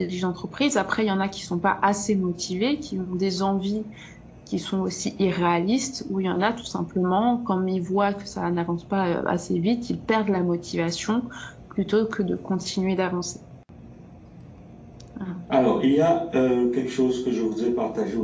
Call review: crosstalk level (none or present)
none